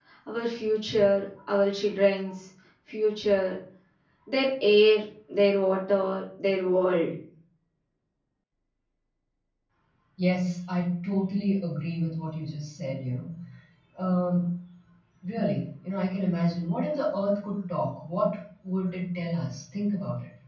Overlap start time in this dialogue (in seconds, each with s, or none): none